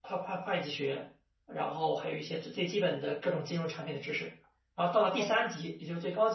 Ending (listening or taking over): listening